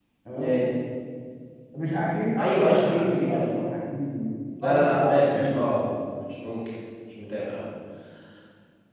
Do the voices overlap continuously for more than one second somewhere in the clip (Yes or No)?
Yes